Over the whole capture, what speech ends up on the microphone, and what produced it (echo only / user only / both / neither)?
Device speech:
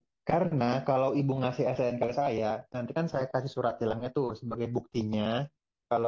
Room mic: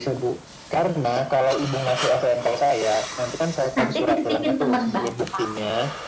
both